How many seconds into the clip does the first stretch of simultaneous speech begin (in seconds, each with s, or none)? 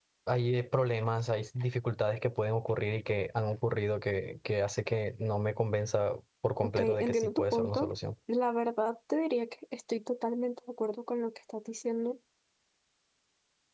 6.6 s